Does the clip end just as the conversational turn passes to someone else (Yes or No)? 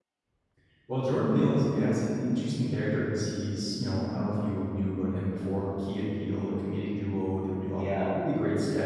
No